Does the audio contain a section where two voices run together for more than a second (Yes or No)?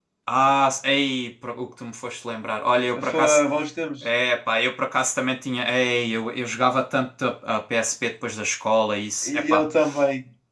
No